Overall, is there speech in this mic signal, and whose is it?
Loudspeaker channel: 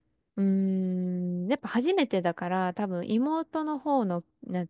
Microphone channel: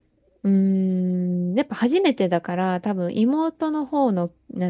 echo only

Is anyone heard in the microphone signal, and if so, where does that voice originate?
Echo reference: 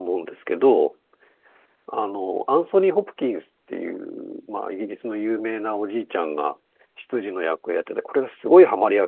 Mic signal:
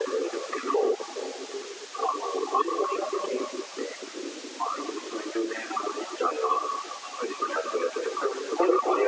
echo only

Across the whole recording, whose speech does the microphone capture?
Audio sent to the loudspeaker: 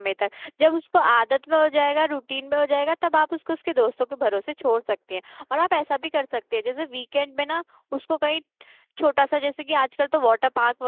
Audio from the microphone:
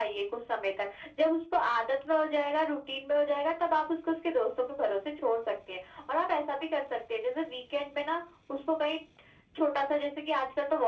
echo only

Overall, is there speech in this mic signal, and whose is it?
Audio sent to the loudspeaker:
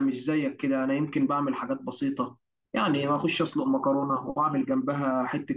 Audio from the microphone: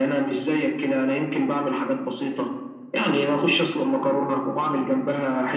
echo only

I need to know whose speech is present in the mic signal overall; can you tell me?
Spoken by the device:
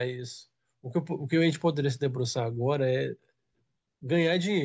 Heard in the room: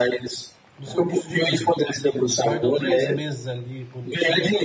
both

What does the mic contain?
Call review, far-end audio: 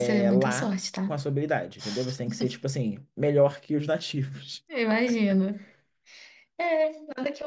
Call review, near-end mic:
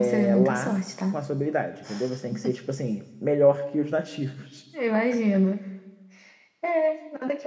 echo only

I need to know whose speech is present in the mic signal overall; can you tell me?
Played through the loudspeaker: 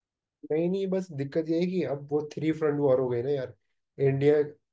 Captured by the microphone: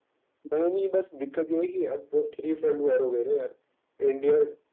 echo only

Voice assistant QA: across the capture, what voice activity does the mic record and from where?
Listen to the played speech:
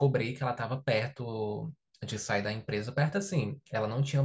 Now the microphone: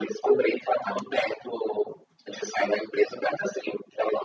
both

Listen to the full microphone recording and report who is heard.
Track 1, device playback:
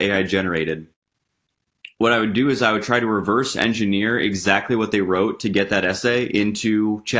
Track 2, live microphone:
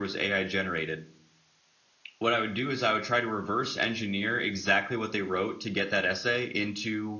echo only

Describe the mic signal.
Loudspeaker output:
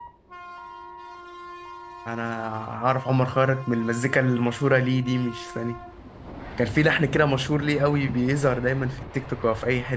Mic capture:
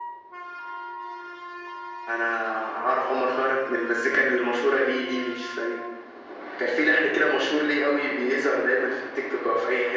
echo only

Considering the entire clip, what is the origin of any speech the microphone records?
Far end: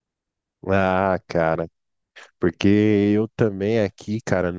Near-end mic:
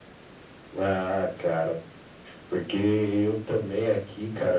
echo only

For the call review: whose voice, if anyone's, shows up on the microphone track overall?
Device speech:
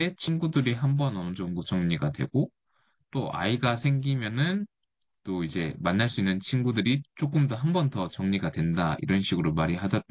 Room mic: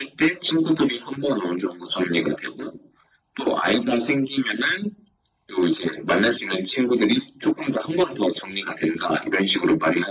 echo only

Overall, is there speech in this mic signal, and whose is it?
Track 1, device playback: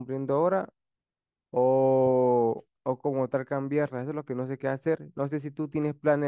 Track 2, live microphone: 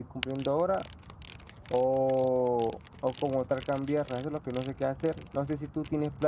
echo only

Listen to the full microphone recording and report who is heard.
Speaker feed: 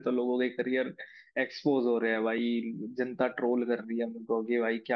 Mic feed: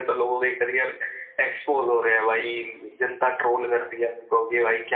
echo only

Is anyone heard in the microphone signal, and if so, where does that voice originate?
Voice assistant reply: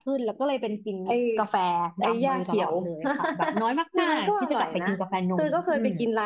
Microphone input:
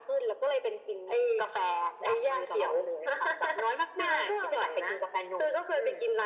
echo only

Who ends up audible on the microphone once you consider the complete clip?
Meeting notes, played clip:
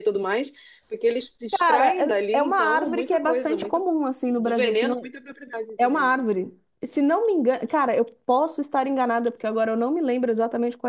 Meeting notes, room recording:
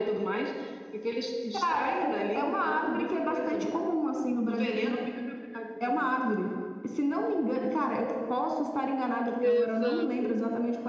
both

